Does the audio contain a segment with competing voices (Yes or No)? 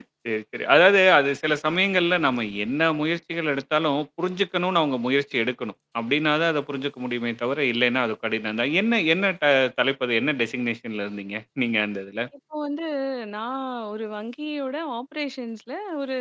No